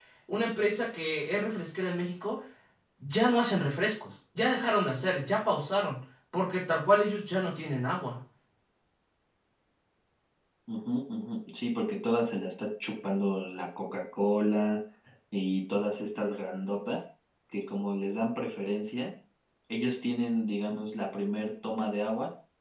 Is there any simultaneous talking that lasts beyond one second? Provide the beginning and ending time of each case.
none

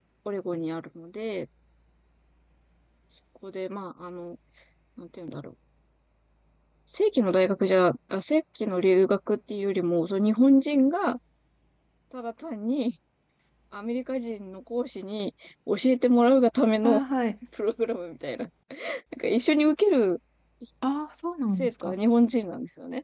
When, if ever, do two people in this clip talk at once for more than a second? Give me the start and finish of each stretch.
none

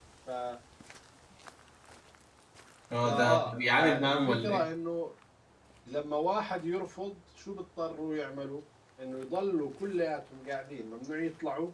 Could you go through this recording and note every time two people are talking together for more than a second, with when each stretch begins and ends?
3.0-4.7

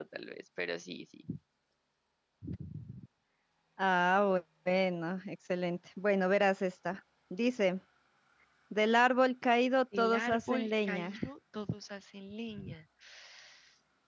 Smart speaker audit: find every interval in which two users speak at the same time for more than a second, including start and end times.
10.0-11.2

